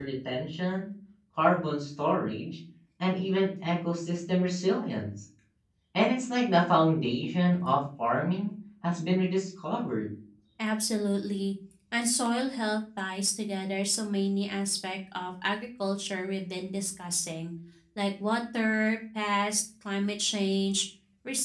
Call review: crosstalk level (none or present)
none